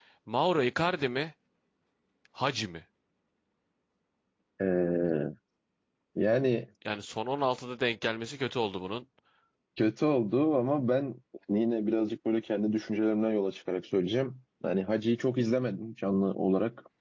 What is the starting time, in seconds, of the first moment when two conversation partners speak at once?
none

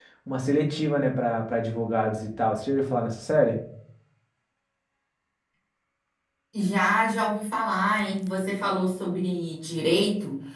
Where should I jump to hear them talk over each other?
none

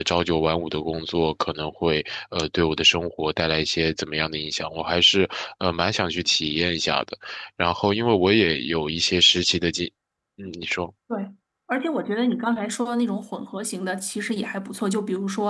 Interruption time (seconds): none

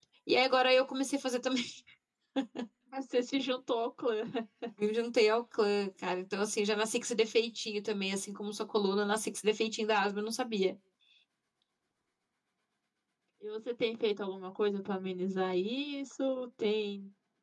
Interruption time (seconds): none

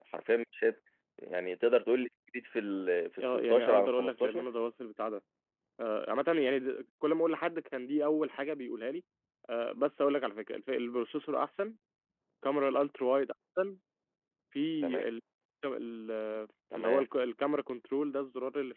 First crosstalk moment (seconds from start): 3.2 s

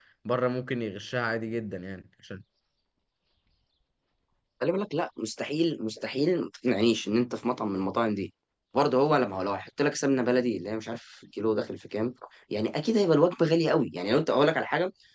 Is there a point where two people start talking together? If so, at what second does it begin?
none

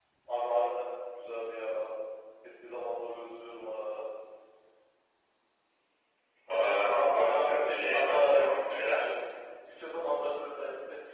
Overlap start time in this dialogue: 7.0 s

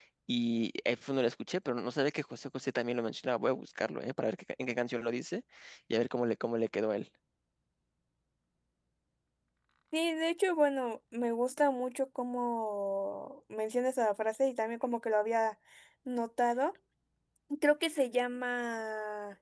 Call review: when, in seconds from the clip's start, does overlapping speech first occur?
none

